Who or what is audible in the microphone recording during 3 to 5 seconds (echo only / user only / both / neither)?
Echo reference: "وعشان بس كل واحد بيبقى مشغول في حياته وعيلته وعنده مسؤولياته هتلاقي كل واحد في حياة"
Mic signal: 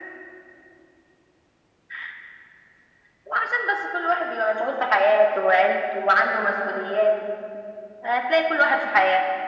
echo only